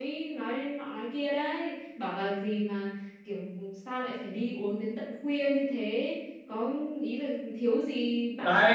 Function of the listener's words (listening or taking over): taking over